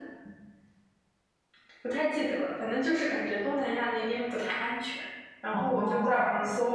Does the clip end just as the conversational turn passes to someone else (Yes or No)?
No